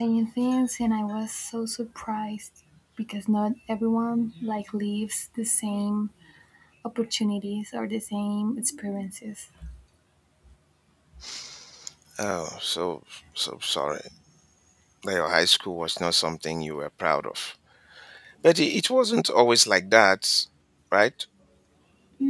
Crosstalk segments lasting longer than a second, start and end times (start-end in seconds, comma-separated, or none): none